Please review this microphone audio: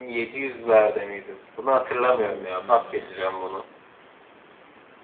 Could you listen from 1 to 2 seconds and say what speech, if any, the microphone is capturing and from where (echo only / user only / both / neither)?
echo only